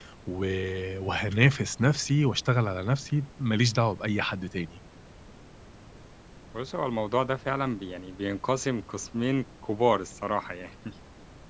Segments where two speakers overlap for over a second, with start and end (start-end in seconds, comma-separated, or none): none